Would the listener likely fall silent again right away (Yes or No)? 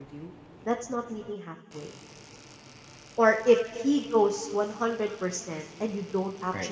Yes